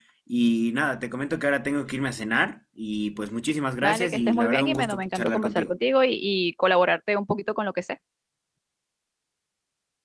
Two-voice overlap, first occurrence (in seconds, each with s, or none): 3.8 s